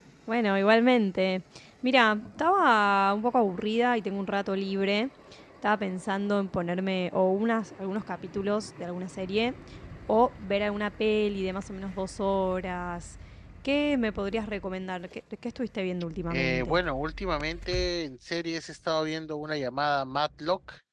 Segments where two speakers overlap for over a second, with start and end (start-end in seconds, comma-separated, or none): none